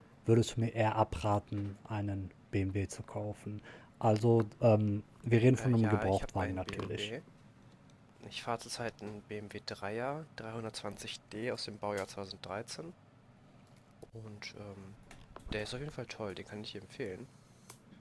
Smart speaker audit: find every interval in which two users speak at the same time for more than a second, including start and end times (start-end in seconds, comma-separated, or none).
5.6-7.1